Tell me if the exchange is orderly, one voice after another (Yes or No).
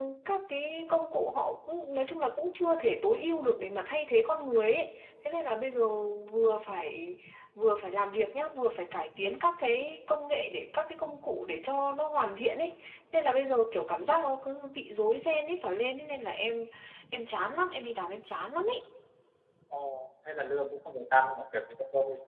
Yes